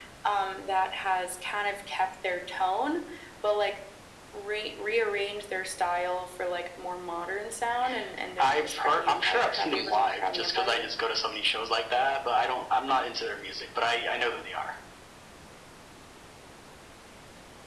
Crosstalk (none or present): present